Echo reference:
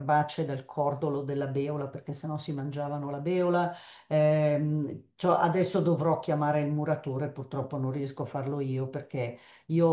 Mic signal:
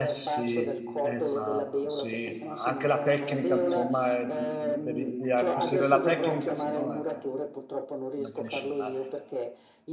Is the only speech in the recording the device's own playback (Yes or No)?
No